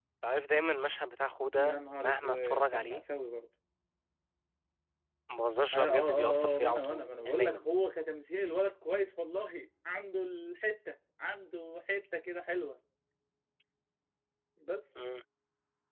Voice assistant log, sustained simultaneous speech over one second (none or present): present